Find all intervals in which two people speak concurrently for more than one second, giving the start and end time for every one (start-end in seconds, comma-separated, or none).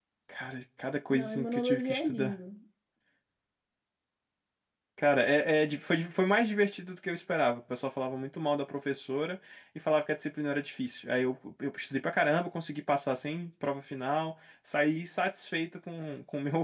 1.1-2.3